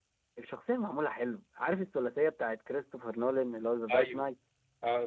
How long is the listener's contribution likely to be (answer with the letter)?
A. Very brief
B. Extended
B